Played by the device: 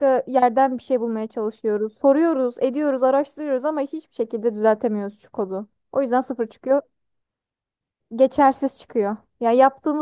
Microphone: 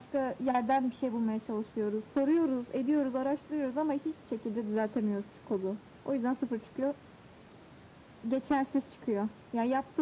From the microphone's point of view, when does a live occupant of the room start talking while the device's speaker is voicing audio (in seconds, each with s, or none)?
none